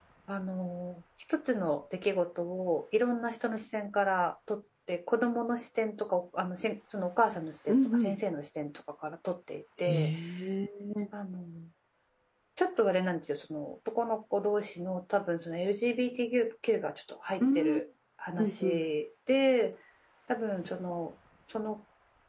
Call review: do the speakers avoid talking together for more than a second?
Yes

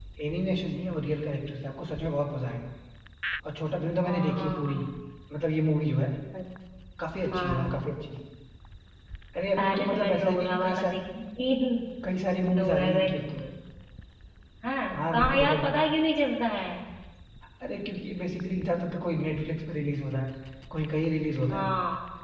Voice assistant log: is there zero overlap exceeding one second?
No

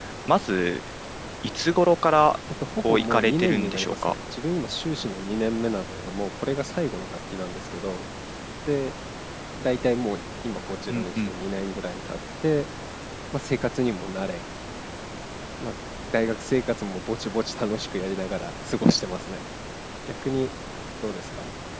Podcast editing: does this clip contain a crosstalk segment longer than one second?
Yes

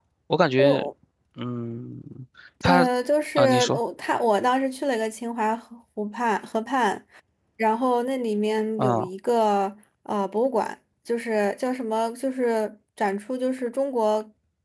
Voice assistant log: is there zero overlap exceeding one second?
Yes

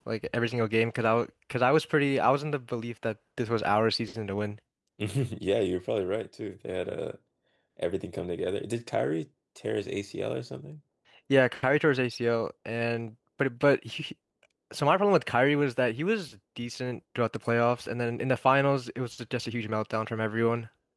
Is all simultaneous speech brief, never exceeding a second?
Yes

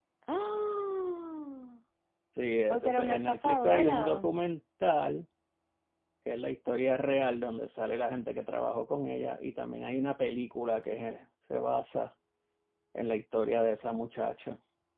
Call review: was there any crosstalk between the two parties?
Yes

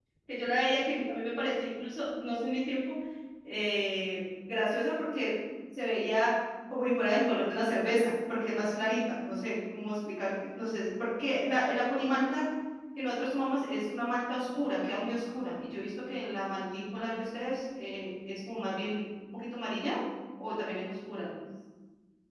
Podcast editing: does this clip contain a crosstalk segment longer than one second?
No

